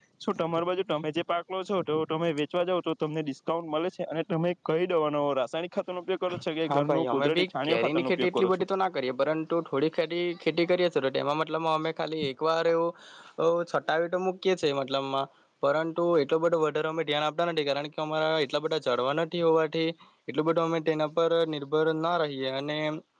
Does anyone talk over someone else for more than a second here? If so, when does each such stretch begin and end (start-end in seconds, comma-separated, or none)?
6.7-8.6